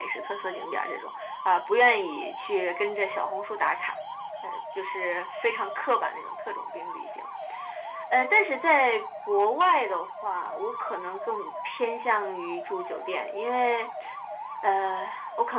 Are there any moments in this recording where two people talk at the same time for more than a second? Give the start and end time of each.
none

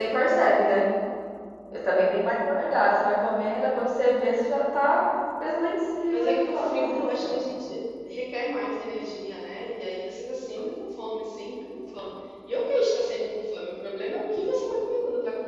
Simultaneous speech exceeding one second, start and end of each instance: 6.1-7.4

